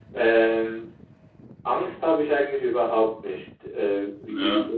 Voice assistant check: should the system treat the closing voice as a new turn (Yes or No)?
No